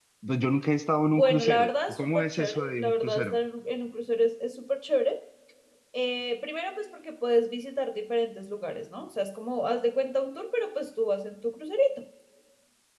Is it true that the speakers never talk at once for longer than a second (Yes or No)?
No